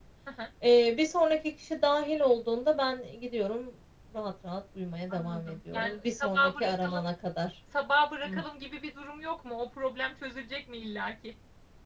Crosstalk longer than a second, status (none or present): present